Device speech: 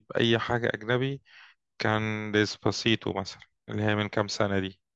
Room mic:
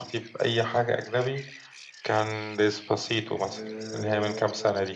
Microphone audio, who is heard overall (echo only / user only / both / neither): both